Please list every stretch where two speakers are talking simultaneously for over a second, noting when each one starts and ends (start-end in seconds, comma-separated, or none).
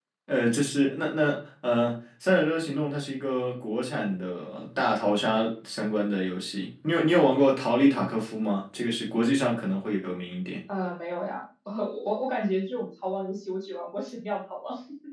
none